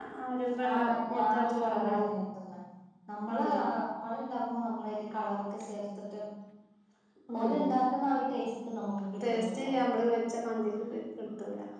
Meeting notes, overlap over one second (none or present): present